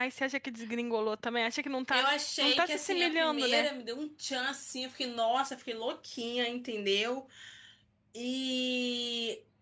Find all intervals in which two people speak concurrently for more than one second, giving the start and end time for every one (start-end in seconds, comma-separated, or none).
1.9-3.7